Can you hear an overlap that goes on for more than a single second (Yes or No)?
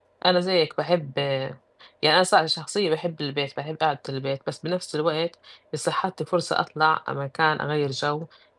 No